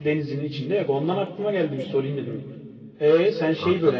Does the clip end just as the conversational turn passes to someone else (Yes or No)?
No